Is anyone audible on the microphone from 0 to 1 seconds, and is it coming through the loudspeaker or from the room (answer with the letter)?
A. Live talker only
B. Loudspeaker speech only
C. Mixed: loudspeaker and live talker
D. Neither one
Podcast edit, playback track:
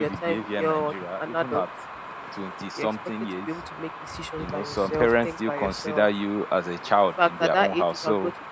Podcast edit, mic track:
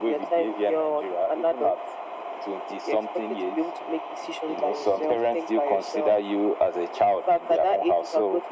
B